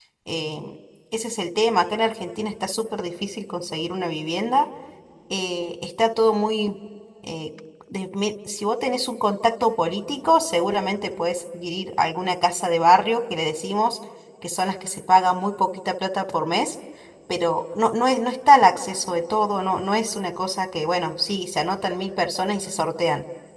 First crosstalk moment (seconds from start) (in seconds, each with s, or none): none